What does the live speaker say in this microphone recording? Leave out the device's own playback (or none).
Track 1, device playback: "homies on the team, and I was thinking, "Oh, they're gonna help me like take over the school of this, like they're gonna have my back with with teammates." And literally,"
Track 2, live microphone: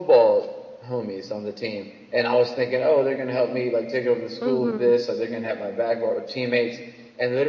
Mhm.